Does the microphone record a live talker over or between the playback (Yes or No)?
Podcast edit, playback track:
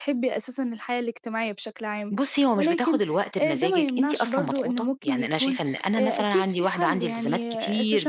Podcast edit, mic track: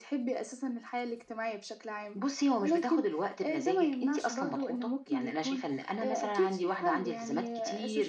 No